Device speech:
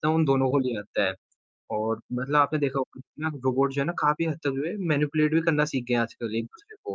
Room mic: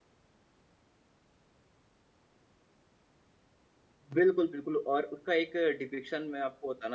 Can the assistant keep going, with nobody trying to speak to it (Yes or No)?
No